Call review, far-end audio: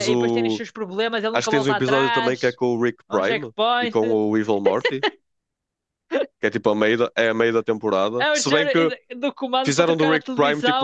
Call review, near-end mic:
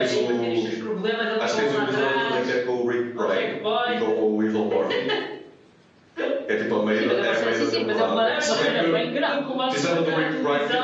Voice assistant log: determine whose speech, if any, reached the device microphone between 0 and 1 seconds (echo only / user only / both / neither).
echo only